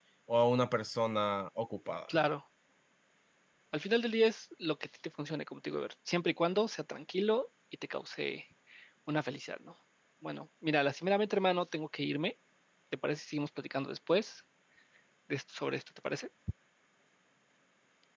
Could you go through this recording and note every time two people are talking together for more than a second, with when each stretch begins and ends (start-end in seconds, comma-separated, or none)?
none